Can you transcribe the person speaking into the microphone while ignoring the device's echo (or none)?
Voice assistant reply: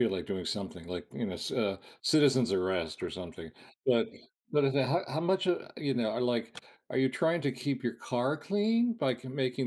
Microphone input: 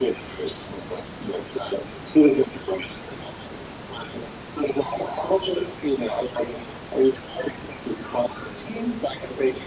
none